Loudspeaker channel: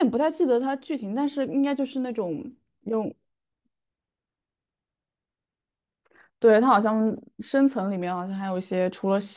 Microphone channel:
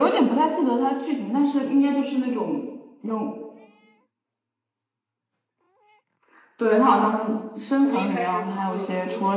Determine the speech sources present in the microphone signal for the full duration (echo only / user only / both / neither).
both